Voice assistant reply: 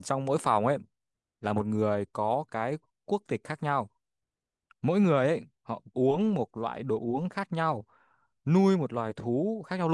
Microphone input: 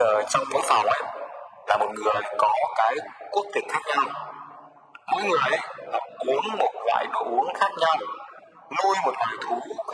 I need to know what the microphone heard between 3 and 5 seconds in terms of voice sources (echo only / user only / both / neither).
echo only